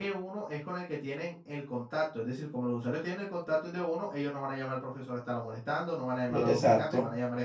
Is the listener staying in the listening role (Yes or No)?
No